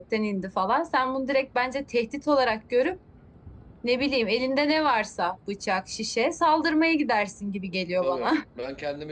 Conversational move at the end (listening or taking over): taking over